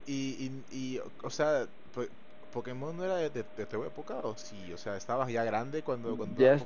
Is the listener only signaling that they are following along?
No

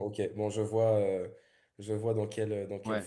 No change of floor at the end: No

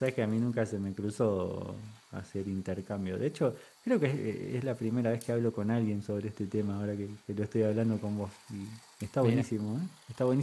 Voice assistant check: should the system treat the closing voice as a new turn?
No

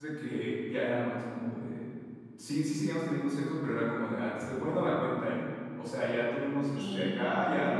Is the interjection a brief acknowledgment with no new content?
Yes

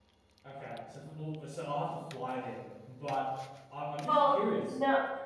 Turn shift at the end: Yes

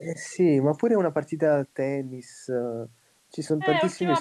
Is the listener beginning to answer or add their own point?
Yes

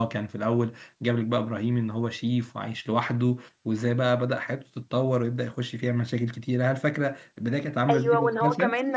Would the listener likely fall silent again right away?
No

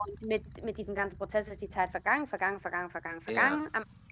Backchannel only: Yes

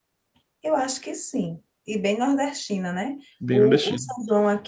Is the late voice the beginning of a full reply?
No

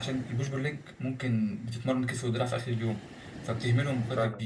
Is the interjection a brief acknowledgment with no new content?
Yes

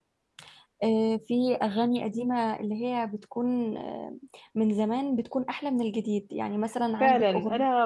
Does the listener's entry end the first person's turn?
Yes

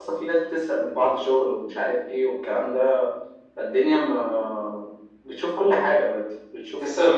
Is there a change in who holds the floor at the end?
Yes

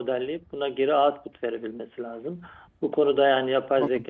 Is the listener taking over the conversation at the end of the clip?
No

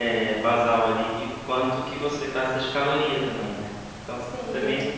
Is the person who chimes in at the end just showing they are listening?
No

